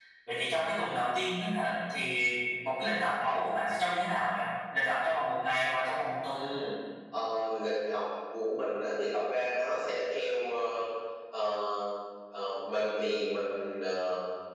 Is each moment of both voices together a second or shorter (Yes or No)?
Yes